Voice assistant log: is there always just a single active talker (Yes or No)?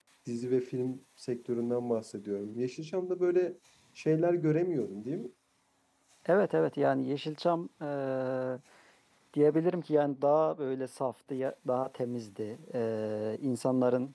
Yes